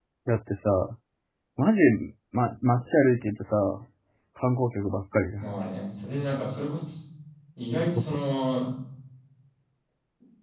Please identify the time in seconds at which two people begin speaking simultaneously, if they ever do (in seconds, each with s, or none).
none